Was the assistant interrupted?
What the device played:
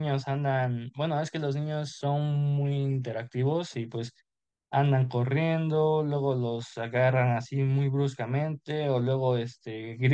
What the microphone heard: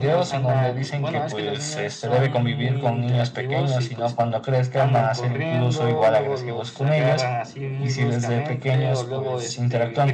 Yes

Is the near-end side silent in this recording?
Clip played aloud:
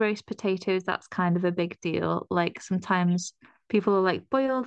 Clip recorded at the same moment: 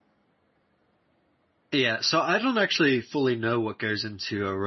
No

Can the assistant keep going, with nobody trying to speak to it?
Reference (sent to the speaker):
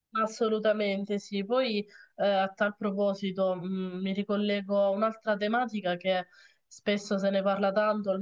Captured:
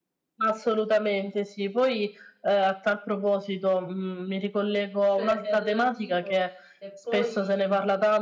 No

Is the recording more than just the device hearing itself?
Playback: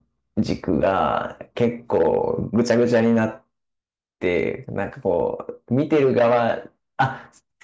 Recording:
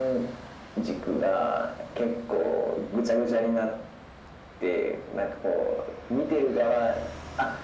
No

